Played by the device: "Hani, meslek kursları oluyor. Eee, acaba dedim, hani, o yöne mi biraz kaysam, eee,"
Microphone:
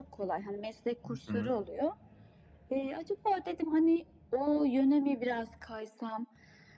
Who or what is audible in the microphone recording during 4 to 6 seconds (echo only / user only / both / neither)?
echo only